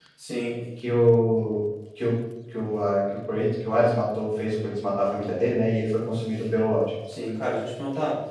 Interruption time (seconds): none

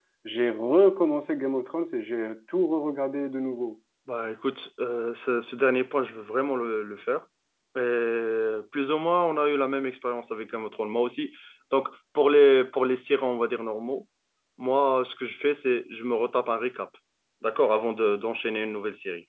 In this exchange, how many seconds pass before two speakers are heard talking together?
none

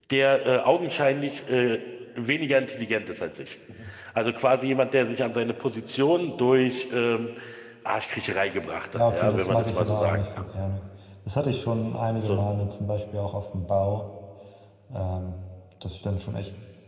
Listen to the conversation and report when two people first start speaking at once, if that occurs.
9 s

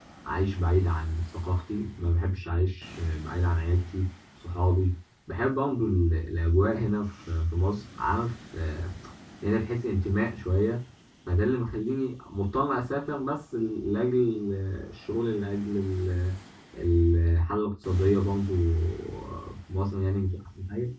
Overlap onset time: none

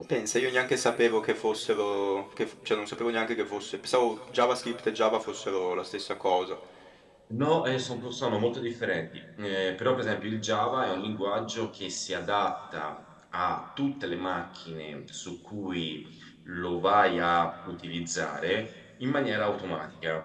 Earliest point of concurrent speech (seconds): none

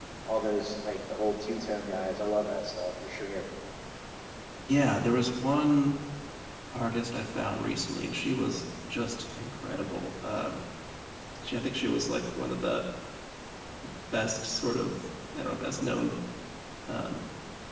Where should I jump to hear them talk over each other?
none

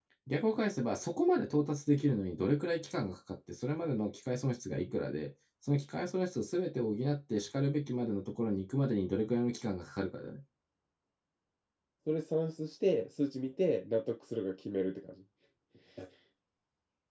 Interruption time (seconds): none

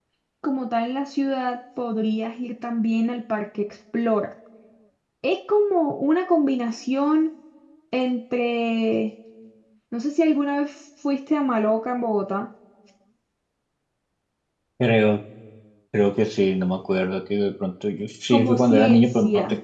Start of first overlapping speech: 18 s

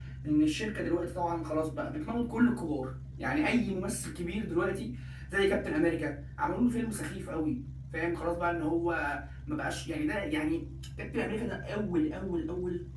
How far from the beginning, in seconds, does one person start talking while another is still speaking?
none

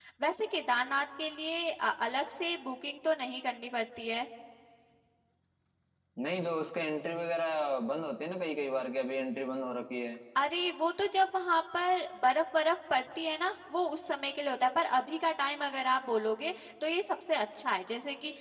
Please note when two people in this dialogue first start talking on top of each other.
none

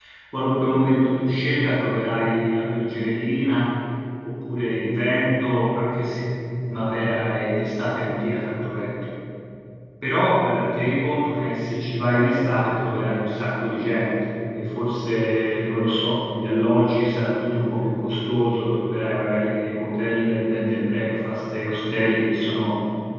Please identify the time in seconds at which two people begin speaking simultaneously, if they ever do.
none

